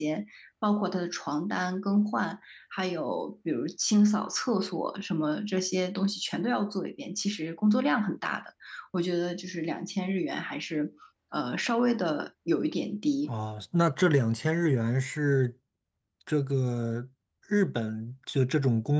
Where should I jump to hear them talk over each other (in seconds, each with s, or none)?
none